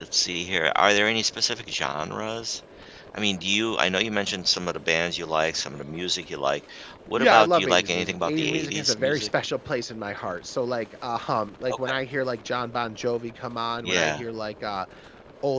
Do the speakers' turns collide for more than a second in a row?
Yes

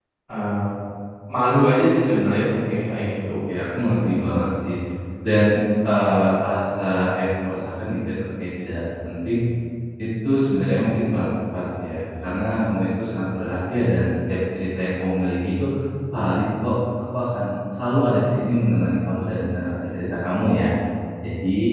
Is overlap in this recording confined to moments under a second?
Yes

